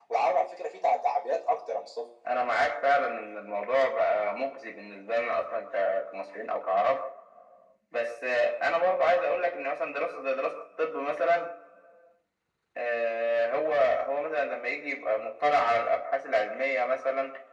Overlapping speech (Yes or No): No